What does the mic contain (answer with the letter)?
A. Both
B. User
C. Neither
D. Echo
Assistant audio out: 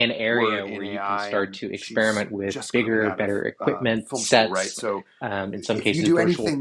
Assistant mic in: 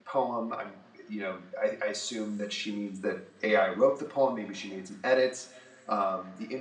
B